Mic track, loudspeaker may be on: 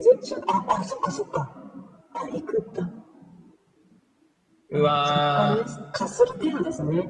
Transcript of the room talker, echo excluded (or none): うわー。